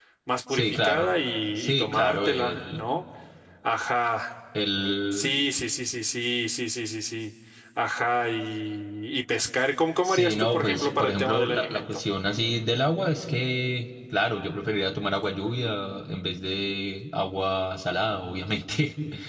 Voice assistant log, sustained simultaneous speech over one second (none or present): present